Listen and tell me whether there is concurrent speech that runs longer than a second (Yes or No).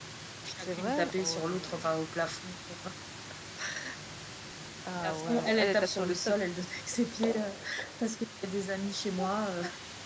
Yes